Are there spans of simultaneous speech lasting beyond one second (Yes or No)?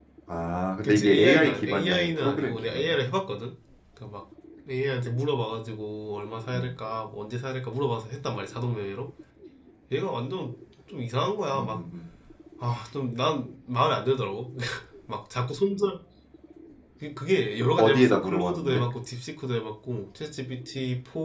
Yes